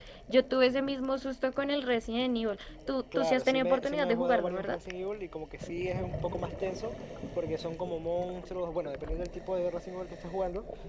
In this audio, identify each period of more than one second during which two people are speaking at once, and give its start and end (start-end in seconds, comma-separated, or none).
3.1-4.8